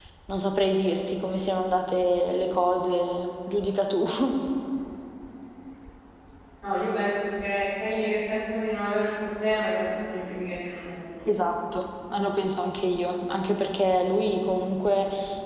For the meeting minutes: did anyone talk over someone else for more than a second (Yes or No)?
No